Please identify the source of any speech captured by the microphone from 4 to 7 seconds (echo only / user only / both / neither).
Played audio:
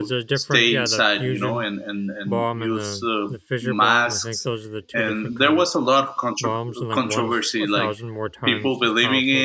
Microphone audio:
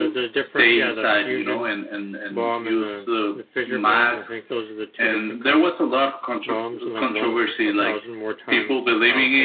echo only